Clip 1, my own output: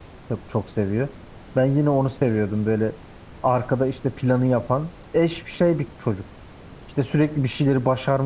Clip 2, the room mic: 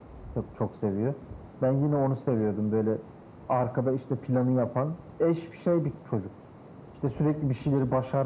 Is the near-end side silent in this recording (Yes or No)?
Yes